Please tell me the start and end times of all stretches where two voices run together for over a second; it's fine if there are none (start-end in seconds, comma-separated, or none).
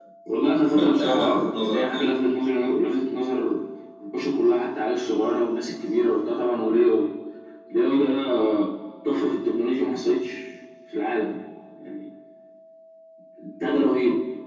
0.7-2.1